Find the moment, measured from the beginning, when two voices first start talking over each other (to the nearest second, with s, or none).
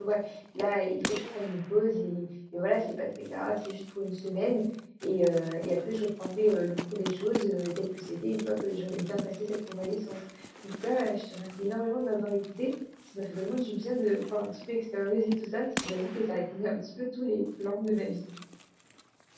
none